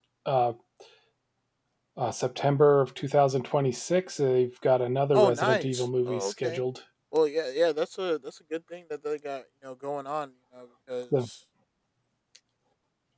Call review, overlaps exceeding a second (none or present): present